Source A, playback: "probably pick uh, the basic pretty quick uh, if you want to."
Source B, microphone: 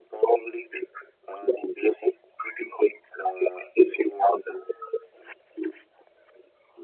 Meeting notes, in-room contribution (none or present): none